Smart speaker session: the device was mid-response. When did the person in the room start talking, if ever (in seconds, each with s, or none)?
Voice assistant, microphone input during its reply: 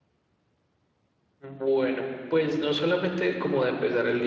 1.4 s